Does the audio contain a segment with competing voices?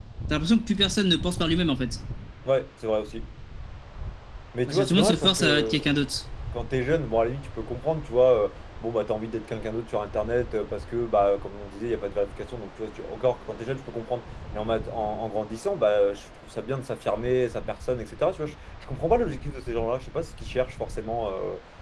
Yes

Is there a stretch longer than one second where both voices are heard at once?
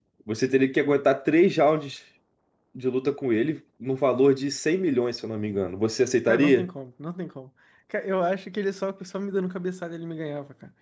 No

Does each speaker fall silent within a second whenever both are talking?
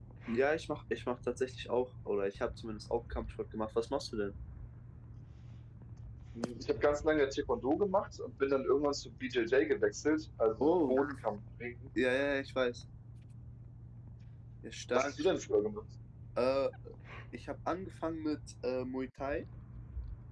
Yes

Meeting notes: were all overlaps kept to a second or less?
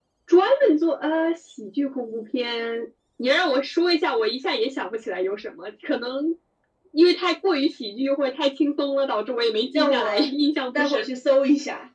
Yes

